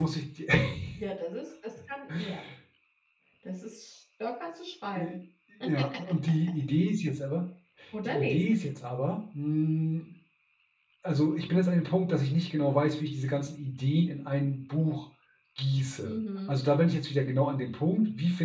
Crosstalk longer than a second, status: none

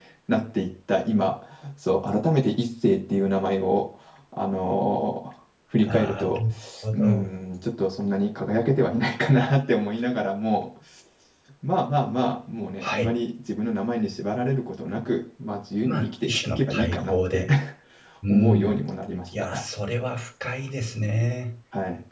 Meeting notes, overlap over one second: present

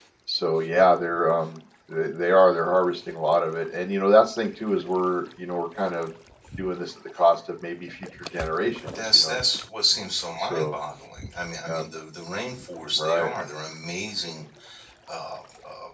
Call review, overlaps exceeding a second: none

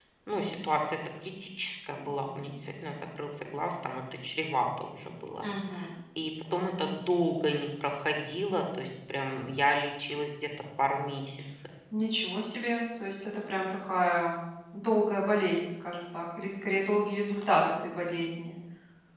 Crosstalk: none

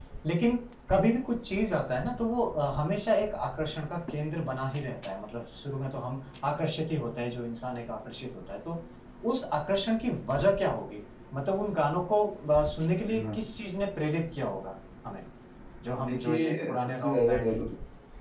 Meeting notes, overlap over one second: present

